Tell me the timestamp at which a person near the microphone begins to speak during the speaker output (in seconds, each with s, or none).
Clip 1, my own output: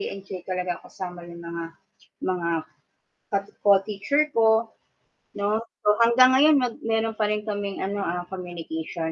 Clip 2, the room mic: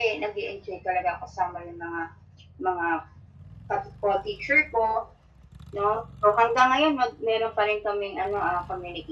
none